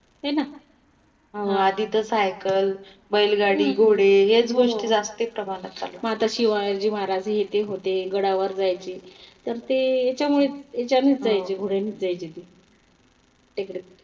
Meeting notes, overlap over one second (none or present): none